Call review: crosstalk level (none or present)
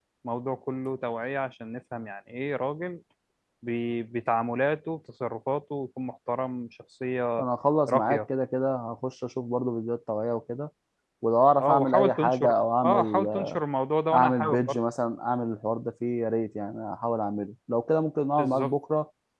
present